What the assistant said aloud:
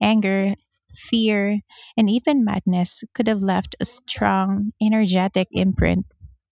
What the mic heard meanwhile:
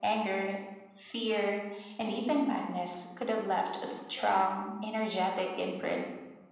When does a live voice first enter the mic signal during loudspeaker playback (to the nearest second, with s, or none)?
none